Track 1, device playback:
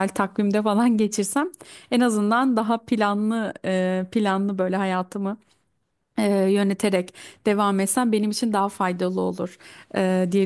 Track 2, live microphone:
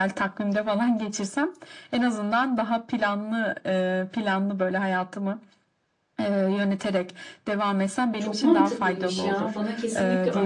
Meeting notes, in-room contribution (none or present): present